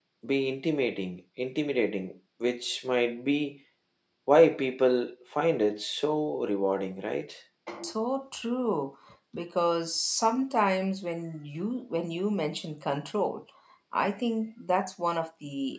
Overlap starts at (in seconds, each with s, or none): none